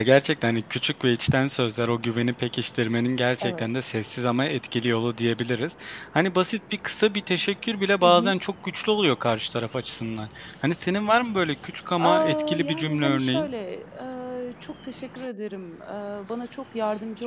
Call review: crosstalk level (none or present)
present